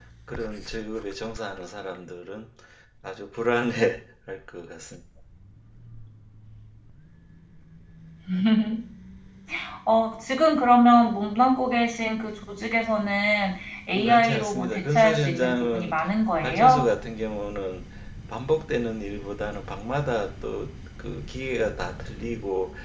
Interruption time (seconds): 13.9 s

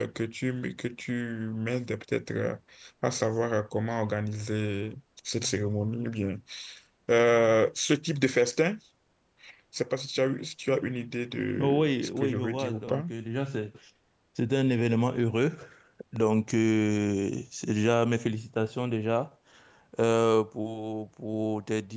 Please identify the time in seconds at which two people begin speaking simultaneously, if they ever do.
11.5 s

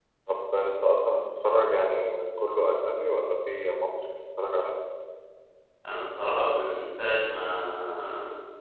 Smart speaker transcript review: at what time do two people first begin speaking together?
none

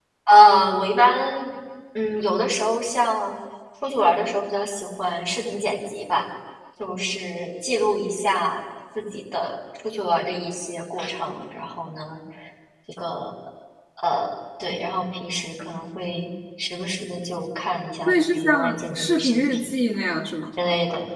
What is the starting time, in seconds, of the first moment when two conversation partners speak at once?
18.1 s

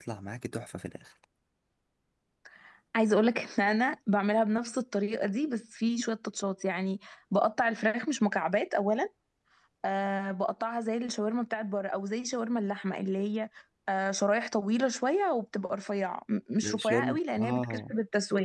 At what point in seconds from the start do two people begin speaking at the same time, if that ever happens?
16.6 s

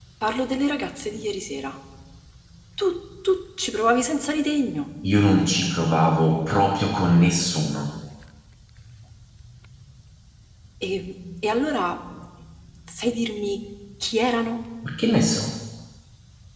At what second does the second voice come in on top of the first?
none

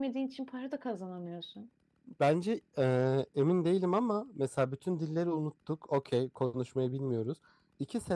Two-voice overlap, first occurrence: none

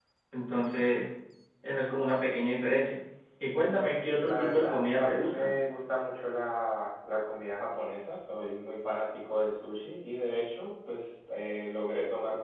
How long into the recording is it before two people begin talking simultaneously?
3.5 s

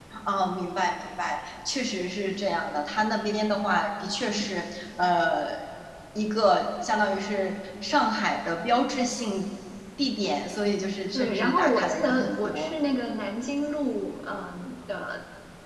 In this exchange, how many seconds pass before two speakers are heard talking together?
11.1 s

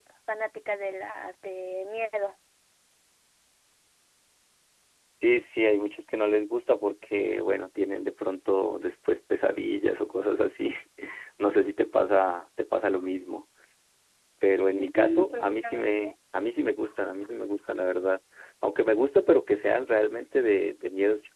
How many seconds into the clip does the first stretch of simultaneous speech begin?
14.8 s

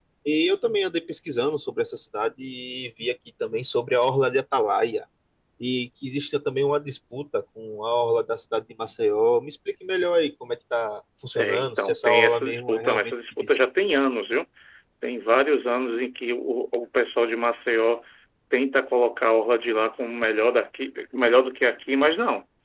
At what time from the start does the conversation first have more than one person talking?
11.4 s

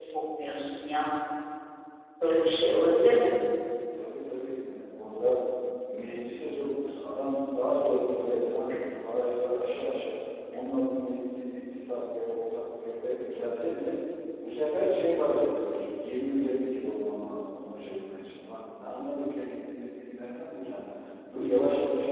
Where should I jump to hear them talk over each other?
none

